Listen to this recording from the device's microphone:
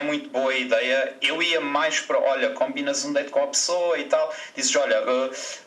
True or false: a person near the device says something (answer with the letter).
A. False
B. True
A